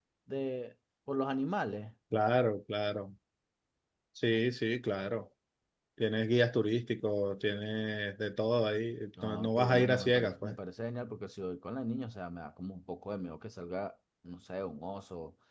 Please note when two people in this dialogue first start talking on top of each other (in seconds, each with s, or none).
9.1 s